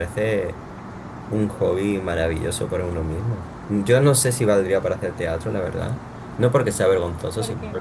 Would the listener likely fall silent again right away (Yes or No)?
Yes